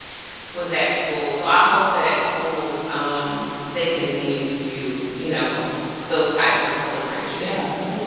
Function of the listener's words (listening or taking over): taking over